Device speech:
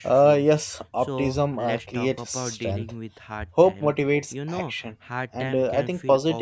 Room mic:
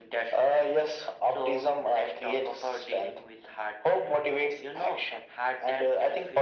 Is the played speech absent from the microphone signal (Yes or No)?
No